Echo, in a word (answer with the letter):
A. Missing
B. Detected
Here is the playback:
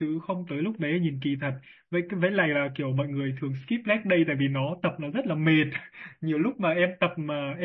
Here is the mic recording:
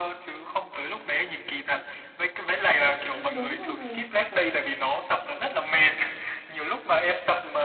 B